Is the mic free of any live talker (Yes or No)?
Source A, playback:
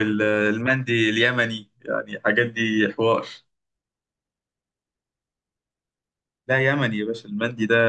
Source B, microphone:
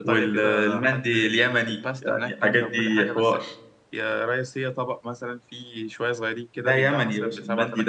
No